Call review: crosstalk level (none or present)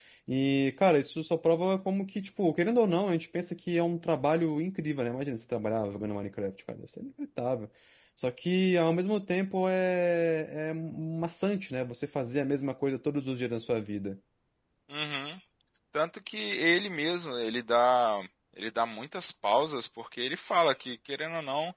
none